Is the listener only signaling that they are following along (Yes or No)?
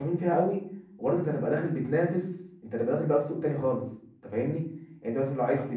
Yes